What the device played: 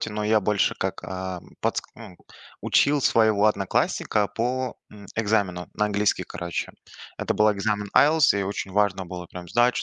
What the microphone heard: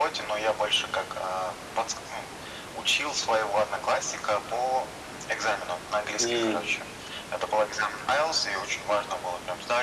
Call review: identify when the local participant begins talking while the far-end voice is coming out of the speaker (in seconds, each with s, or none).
6.2 s